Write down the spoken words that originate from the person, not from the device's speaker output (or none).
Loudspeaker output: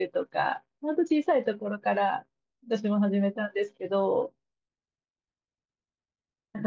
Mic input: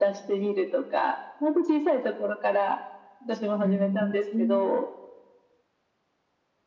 うん。